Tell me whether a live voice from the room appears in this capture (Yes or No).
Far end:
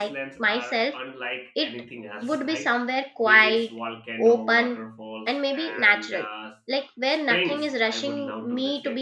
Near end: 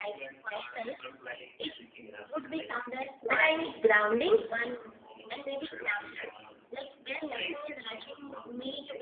Yes